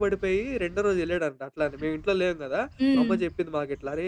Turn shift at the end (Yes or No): No